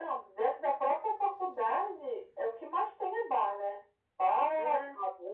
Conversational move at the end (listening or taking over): listening